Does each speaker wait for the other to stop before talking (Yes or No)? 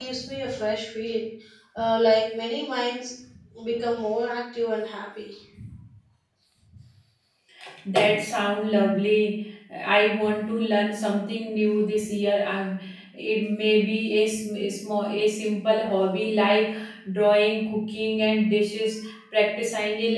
Yes